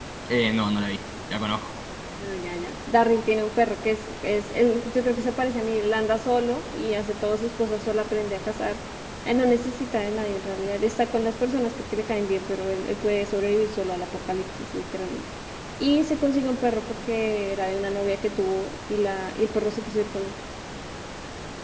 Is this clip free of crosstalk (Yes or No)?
Yes